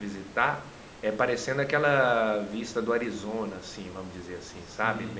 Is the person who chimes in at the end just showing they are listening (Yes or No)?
Yes